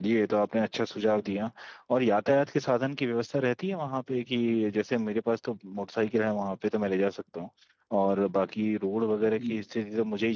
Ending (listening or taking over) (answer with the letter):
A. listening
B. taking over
A